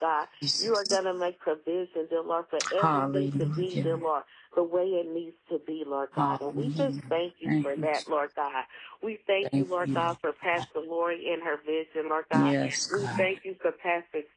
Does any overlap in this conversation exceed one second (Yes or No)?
Yes